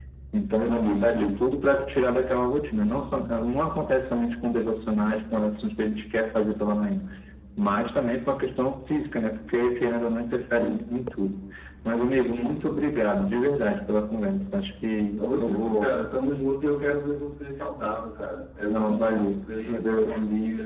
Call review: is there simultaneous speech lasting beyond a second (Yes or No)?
Yes